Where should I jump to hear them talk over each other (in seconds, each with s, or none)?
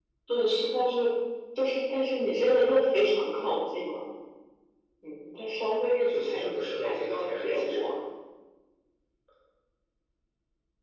6.1 s